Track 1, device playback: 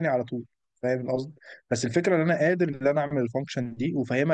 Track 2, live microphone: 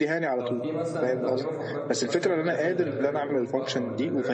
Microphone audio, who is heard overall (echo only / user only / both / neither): both